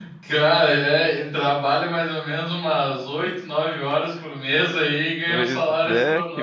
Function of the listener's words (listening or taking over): taking over